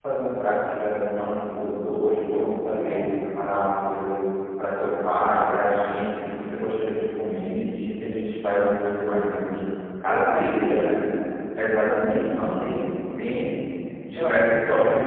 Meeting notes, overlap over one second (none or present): present